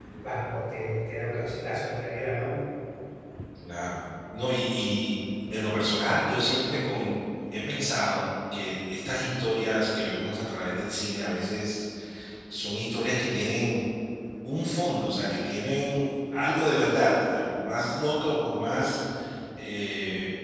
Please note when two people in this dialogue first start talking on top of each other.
none

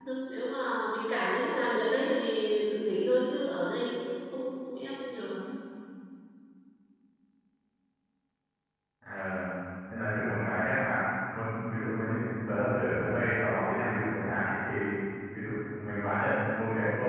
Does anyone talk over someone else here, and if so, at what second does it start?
none

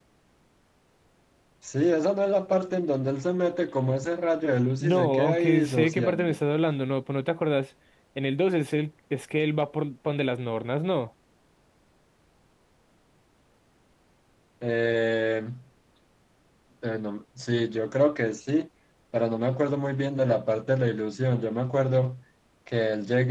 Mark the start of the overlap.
4.8 s

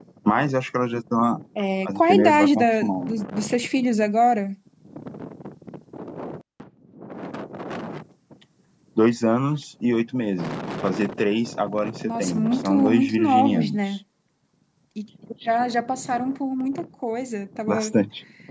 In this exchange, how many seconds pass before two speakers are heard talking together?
1.9 s

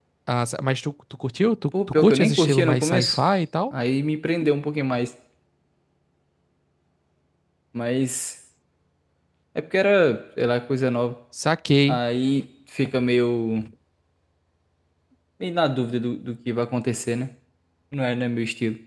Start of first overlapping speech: 1.7 s

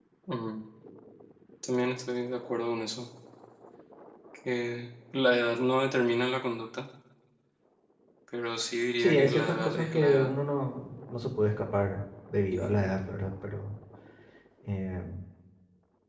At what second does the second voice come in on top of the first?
9.0 s

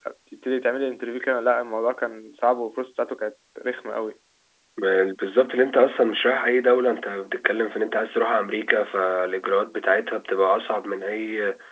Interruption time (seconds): none

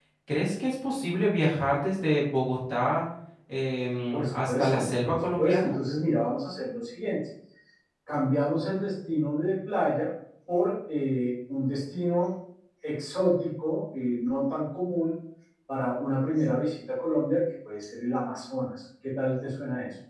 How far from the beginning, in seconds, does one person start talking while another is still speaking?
4.1 s

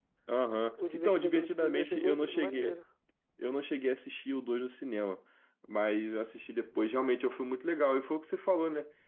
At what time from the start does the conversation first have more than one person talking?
0.9 s

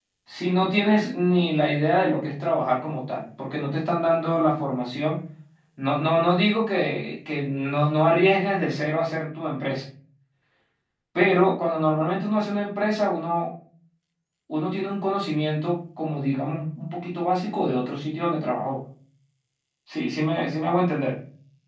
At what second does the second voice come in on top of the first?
none

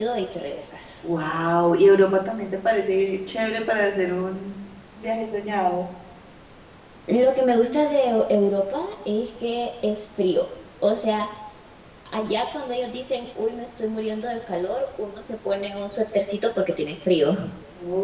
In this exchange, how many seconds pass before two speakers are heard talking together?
none

